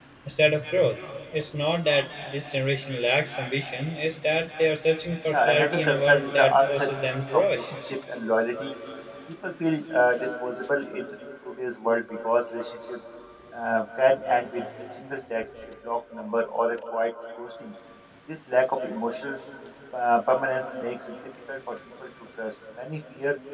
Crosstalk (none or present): present